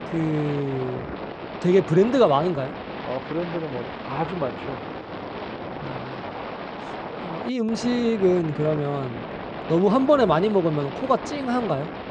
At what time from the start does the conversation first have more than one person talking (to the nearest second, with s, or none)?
none